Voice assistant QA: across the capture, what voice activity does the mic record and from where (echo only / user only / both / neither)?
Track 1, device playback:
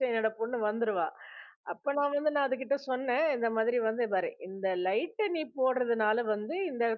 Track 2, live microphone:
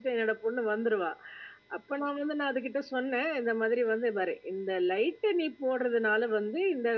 echo only